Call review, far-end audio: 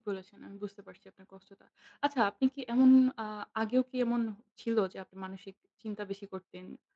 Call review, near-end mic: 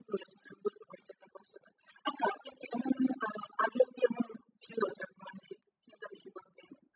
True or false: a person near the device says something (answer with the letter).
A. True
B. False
B